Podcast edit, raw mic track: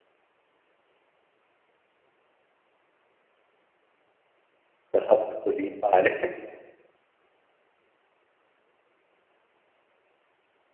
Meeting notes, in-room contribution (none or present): present